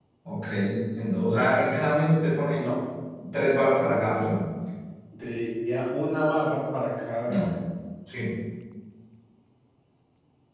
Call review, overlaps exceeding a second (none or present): none